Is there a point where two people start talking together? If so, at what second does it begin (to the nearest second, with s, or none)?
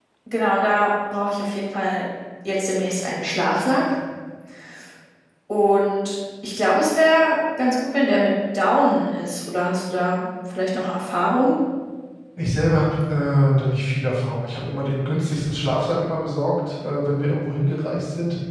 none